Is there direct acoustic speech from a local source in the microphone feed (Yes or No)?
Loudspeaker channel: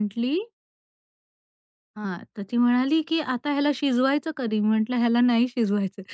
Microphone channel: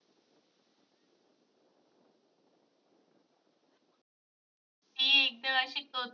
Yes